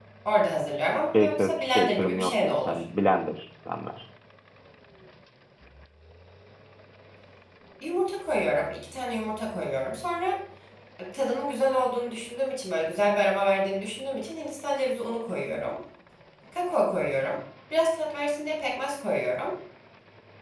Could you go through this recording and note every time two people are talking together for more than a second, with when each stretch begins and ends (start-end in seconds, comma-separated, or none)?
1.2-2.8